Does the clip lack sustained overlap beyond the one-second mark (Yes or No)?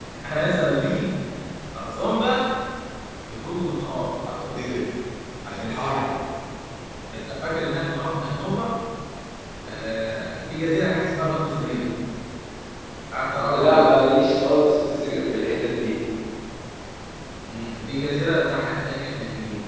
Yes